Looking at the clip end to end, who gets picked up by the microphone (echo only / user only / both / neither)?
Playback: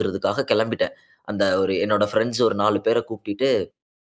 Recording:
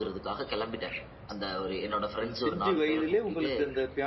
both